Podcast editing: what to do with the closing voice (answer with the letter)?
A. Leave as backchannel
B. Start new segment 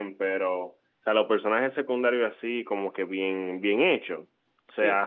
A